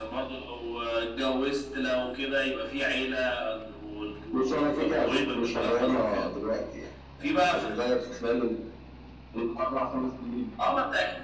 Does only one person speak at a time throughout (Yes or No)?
No